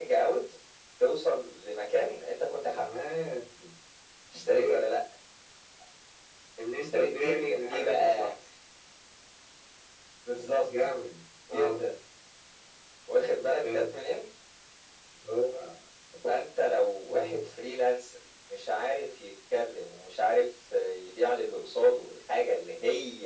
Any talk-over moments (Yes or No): Yes